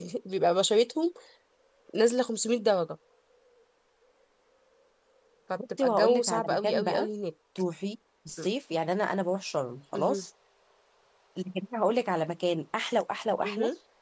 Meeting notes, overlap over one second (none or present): present